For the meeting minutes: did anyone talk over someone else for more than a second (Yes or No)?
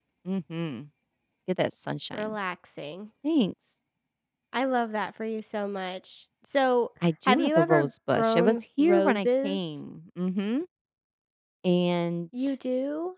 Yes